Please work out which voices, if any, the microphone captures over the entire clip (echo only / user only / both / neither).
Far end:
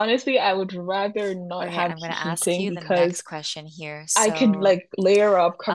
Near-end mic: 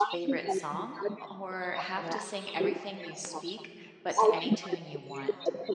both